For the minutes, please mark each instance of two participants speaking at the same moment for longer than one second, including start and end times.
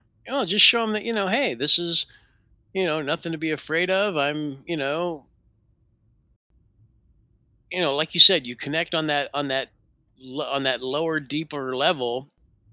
none

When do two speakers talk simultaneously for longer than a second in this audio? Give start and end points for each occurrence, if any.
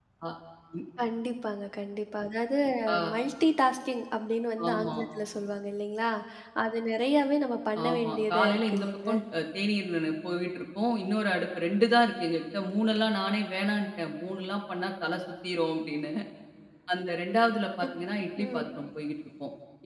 7.9-9.1

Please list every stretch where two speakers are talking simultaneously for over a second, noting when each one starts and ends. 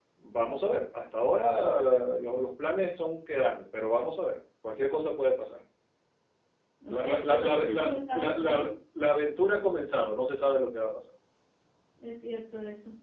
6.9-8.6

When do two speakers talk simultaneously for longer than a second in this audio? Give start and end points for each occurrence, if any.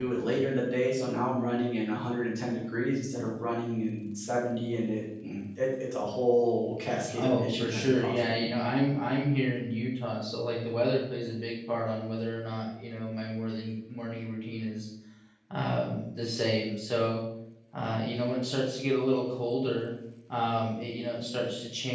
7.1-8.5

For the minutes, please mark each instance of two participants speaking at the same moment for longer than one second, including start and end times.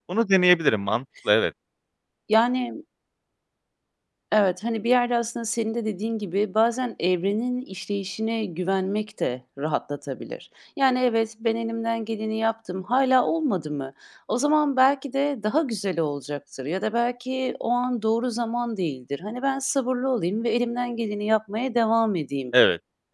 none

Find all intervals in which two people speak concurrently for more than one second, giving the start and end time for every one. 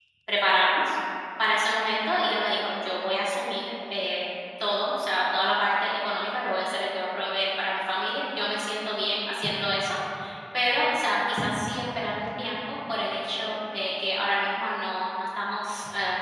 none

